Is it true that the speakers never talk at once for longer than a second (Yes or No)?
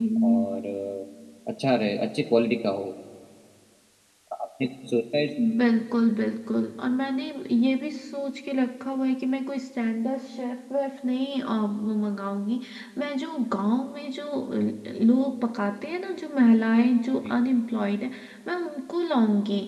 Yes